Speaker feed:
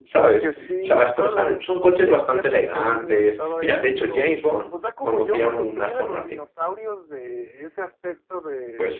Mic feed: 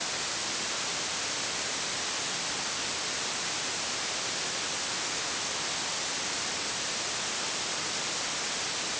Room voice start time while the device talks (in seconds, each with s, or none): none